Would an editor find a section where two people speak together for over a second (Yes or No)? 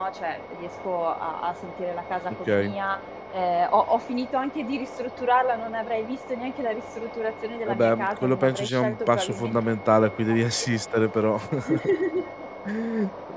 Yes